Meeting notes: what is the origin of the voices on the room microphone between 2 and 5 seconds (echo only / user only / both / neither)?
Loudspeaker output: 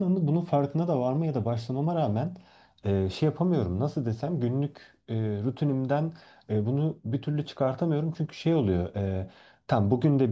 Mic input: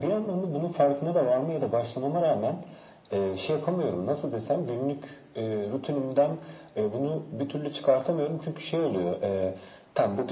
echo only